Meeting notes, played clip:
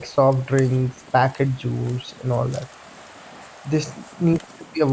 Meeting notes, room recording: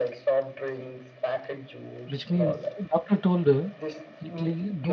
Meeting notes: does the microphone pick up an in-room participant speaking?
Yes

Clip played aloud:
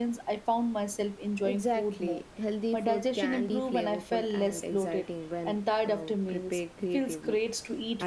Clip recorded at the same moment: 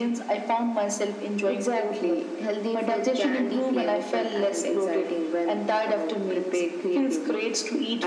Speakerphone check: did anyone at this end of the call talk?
No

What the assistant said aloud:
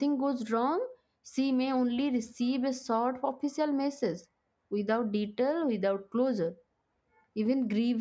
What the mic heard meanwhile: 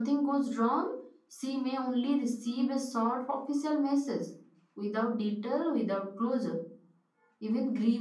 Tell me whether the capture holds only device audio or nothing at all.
Yes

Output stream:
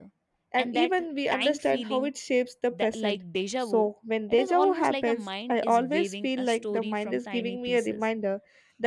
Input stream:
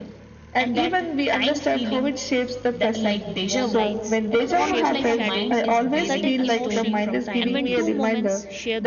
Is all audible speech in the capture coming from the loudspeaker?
No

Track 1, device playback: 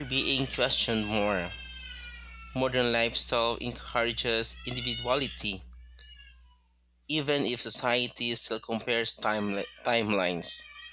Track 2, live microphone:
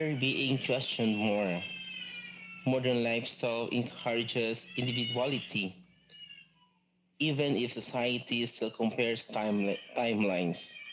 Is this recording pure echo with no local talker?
Yes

